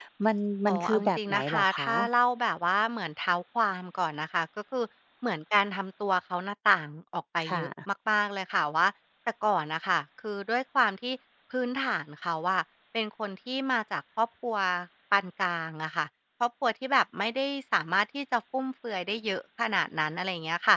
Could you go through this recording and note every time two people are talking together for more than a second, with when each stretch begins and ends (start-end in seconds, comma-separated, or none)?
0.7-2.1